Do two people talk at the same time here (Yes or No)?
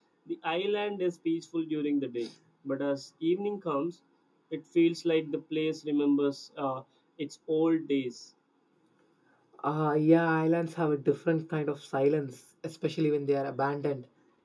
No